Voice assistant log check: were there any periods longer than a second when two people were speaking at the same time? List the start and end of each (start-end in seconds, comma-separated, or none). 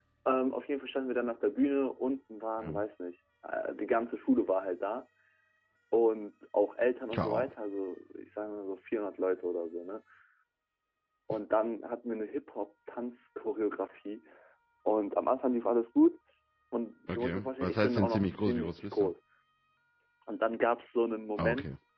17.1-19.1